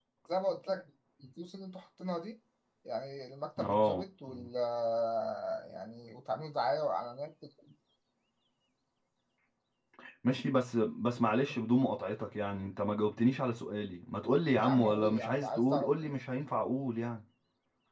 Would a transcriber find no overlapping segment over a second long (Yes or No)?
No